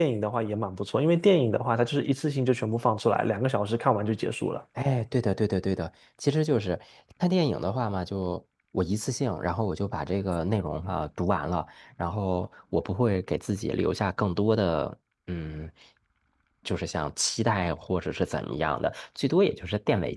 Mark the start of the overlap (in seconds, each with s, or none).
none